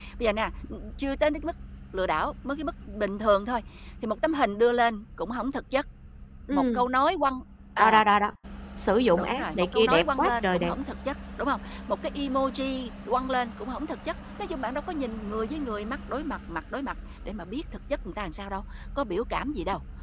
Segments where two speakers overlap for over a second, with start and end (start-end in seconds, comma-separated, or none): 9.2-10.7